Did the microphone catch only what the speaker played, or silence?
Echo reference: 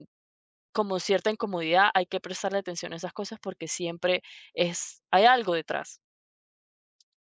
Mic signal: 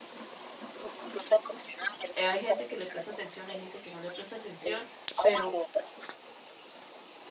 No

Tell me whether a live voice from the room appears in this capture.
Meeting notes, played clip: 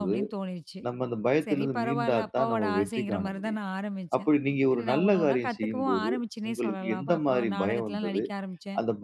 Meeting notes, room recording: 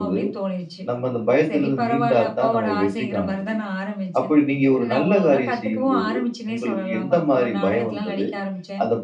No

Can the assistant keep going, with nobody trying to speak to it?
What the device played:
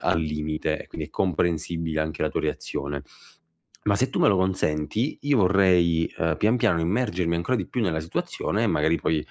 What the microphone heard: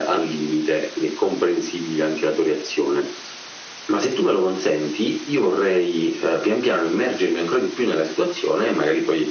Yes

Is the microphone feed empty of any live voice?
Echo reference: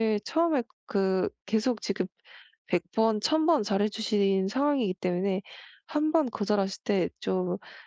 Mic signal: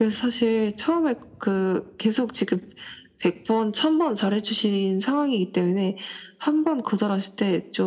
Yes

